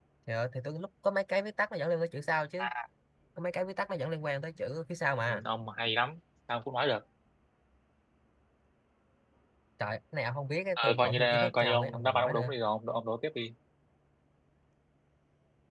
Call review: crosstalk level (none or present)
present